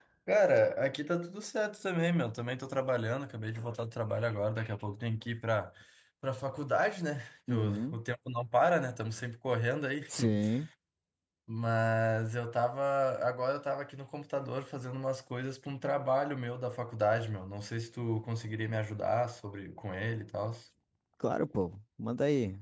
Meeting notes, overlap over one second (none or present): none